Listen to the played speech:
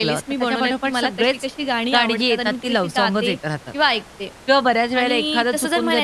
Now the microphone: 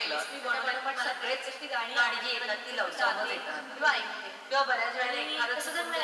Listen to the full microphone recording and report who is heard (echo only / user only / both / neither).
both